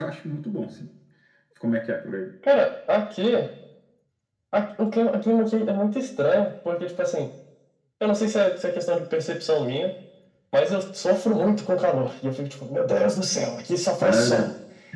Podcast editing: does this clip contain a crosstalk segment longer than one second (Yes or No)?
No